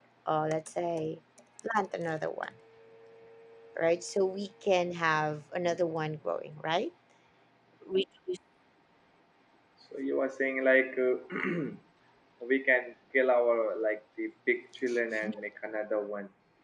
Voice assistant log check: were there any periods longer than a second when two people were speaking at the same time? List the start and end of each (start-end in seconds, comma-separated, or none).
none